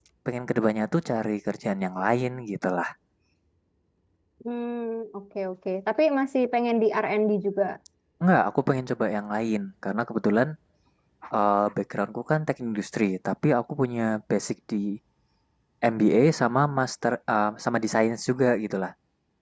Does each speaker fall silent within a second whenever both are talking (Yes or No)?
Yes